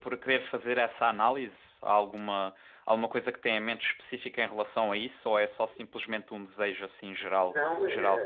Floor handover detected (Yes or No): Yes